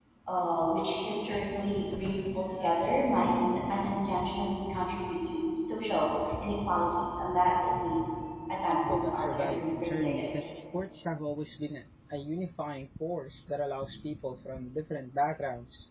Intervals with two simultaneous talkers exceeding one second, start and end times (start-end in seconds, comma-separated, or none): 8.8-10.2